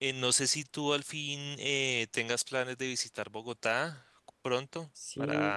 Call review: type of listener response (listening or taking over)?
taking over